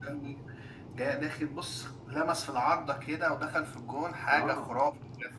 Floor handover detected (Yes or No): Yes